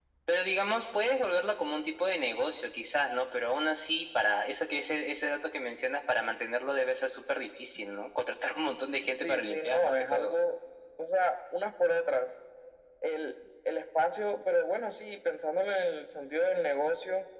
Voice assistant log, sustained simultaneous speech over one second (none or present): present